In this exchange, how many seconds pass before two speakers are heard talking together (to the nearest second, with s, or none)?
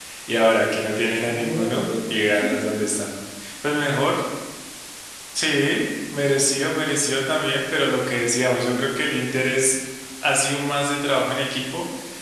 1 s